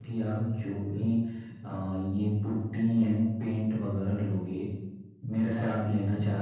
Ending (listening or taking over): listening